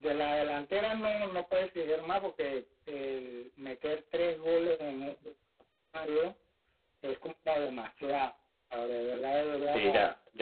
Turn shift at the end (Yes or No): Yes